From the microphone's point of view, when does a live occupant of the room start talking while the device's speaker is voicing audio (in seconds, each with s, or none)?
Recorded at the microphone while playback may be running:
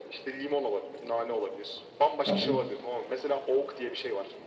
2.3 s